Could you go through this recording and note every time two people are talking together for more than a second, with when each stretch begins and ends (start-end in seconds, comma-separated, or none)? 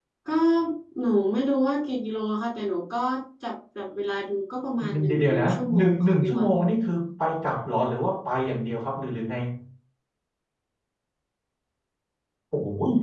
5.1-6.5